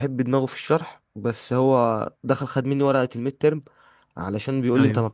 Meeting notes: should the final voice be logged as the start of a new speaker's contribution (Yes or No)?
No